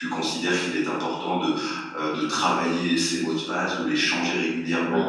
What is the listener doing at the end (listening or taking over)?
listening